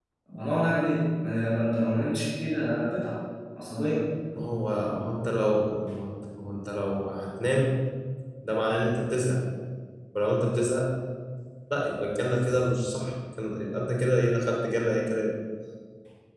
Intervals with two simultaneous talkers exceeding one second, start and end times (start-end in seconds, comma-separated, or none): none